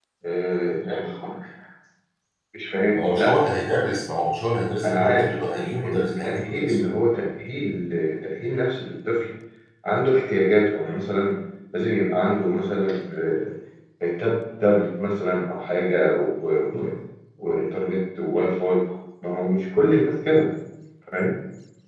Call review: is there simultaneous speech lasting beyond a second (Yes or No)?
Yes